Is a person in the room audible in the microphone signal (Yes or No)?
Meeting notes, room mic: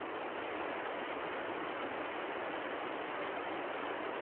No